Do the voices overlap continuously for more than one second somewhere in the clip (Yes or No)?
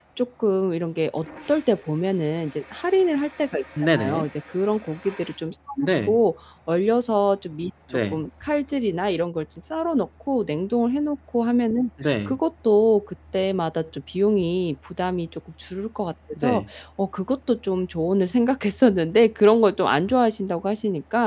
No